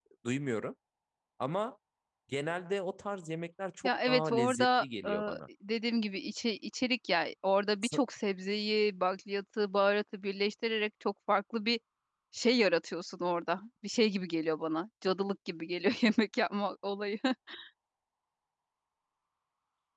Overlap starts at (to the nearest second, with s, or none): 4 s